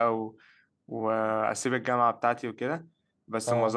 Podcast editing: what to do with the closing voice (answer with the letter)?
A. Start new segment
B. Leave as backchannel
B